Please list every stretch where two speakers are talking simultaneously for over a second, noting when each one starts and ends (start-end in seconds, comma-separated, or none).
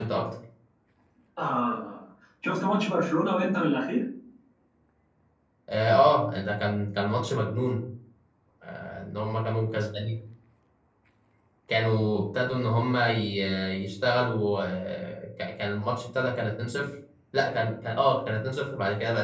none